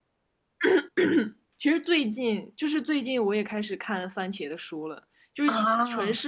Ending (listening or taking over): listening